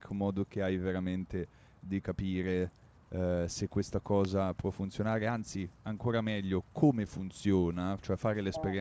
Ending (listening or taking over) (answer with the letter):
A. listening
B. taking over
A